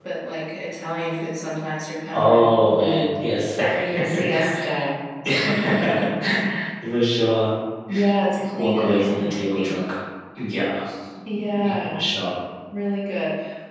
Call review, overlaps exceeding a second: present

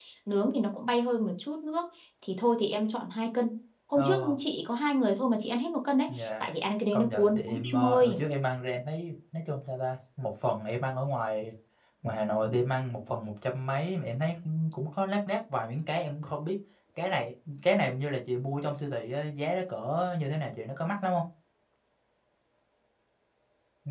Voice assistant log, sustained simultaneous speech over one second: present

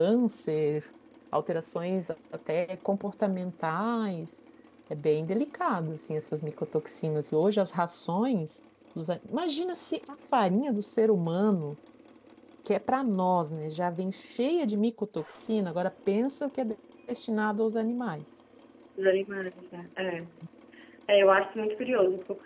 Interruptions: none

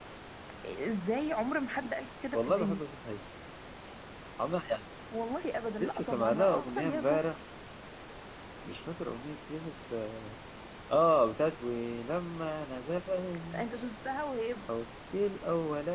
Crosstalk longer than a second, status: present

